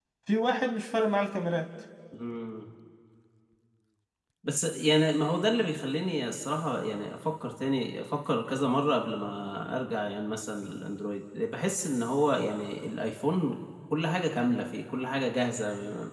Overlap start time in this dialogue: none

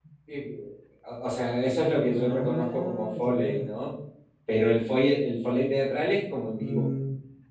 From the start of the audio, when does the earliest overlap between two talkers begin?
2.1 s

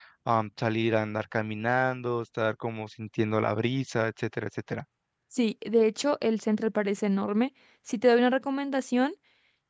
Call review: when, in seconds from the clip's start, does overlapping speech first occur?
none

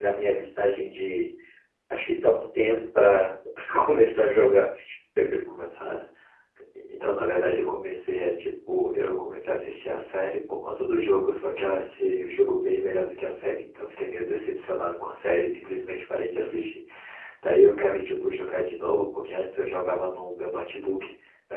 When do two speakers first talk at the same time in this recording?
none

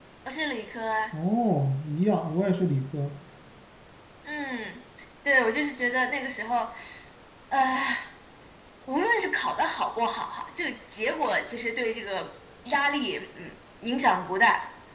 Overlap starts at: none

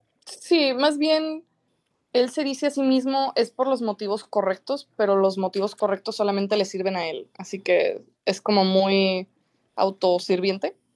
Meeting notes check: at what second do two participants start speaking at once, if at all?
none

